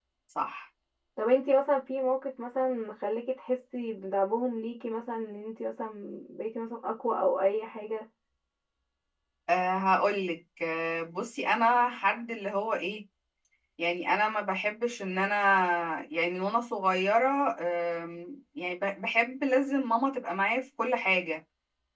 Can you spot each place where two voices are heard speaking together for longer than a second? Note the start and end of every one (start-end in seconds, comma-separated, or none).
none